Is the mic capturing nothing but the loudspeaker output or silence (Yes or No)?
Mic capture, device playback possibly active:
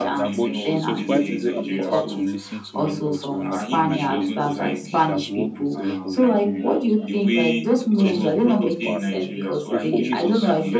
No